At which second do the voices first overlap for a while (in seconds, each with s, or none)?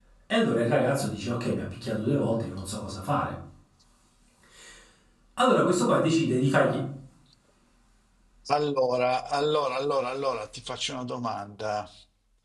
none